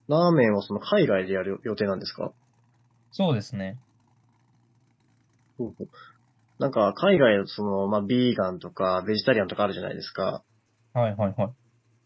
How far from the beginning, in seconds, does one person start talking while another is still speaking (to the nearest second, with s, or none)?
none